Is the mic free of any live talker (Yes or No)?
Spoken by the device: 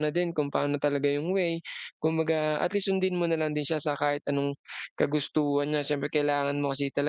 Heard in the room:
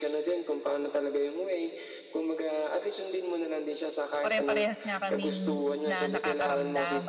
No